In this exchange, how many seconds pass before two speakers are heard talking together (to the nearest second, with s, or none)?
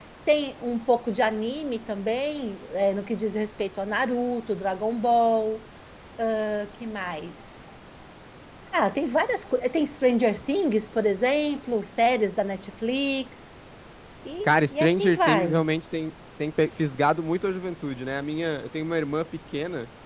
14 s